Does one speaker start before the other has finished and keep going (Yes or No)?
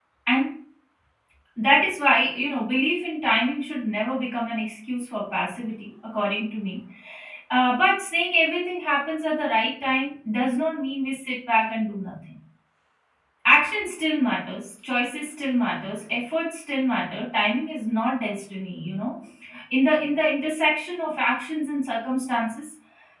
No